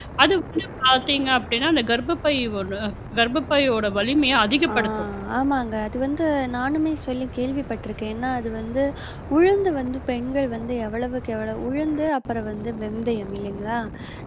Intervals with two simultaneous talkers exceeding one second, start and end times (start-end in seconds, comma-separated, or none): none